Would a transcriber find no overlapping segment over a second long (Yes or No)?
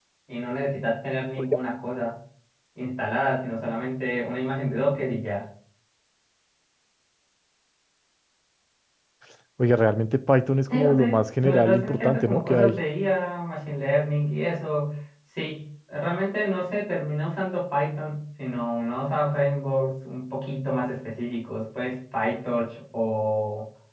No